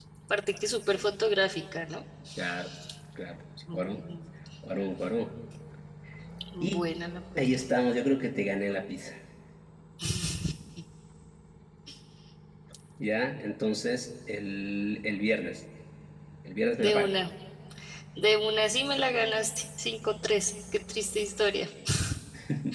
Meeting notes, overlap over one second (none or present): none